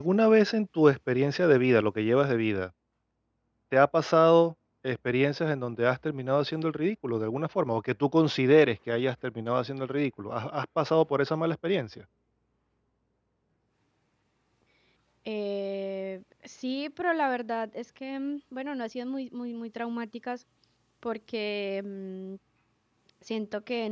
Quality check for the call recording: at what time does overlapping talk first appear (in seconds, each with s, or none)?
none